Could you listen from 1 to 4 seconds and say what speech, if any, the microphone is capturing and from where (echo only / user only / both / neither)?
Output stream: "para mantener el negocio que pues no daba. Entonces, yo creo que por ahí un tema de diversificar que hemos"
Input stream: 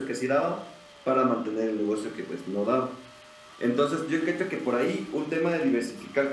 echo only